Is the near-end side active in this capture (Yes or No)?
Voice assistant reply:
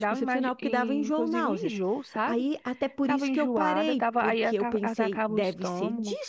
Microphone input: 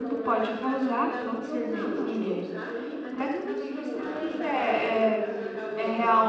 Yes